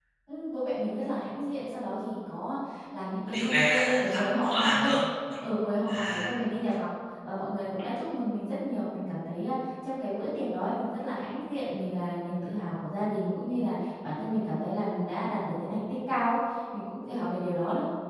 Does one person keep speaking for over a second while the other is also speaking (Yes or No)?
Yes